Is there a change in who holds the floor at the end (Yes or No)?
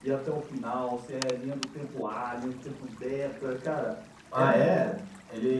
Yes